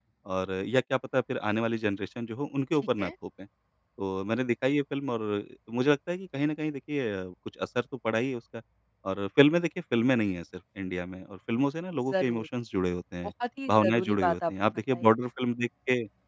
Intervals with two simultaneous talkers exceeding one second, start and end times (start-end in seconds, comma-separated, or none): 13.7-15.1